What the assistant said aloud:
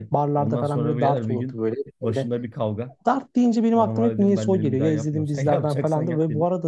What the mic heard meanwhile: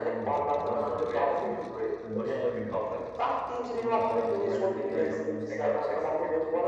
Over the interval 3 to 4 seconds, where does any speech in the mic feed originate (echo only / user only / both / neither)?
both